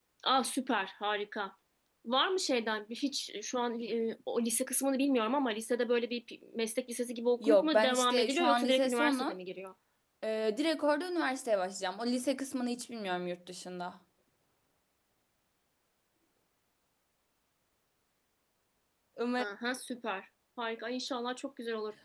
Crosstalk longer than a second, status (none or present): present